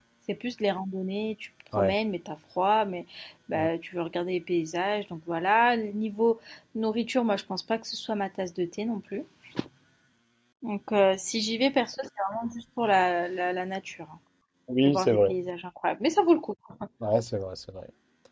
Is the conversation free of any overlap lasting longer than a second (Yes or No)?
Yes